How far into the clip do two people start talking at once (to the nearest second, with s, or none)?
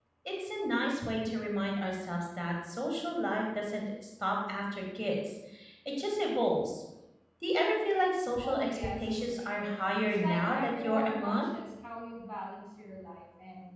8 s